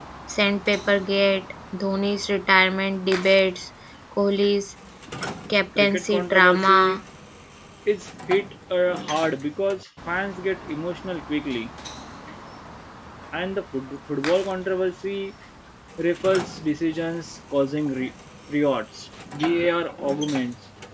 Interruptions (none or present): present